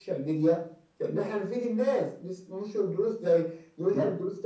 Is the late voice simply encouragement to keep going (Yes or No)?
Yes